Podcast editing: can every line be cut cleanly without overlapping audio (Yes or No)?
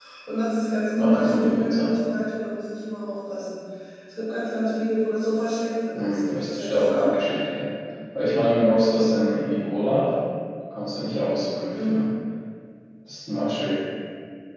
No